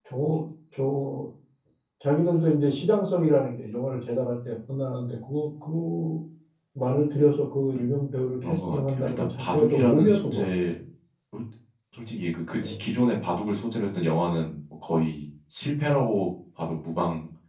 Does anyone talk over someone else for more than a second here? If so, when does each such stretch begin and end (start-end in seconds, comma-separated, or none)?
8.4-10.5